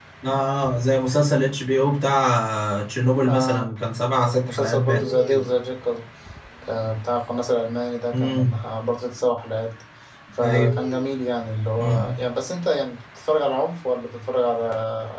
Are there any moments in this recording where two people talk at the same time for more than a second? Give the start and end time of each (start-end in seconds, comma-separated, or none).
4.2-5.4